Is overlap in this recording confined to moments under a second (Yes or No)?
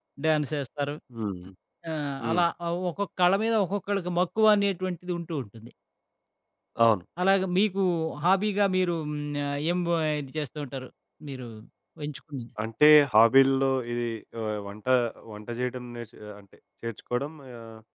Yes